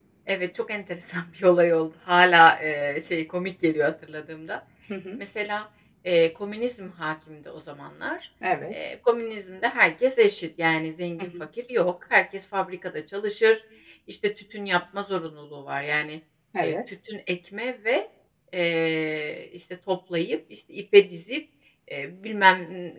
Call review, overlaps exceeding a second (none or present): none